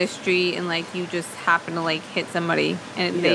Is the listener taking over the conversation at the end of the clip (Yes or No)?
Yes